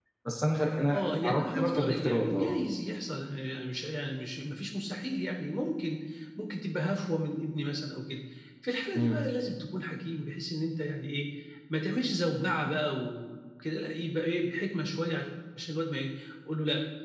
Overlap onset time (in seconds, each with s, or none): 0.9 s